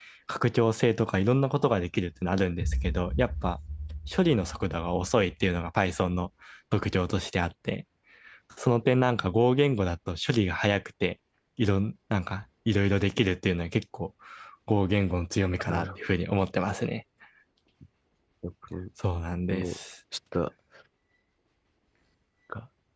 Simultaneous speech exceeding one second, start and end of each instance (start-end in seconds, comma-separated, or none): none